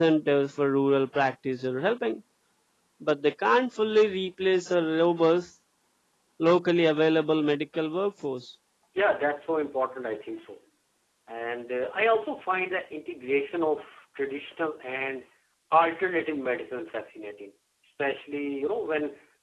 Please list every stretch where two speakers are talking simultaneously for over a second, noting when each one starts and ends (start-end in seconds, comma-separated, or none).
none